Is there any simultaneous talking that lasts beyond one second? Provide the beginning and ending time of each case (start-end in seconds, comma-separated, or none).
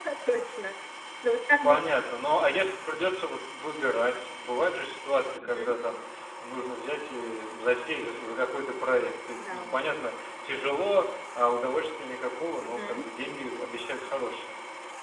none